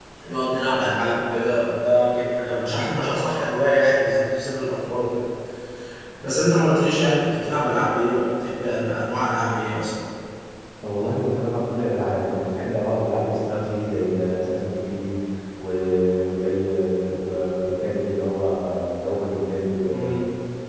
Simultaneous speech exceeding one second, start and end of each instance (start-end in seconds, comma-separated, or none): none